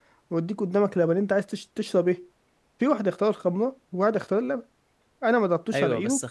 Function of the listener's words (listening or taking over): taking over